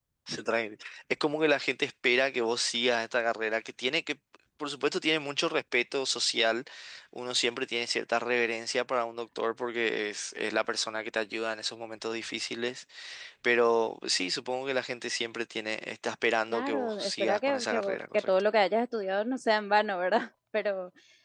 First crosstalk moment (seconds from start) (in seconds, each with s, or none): 16.5 s